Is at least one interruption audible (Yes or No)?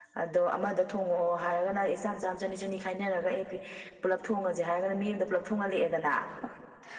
No